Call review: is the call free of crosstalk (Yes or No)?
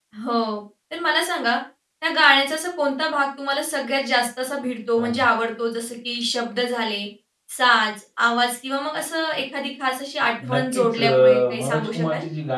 No